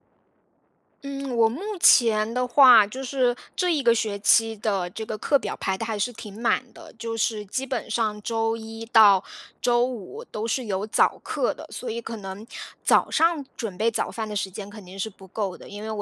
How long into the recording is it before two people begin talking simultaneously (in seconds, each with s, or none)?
none